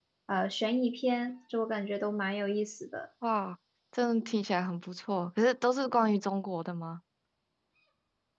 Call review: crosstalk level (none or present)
none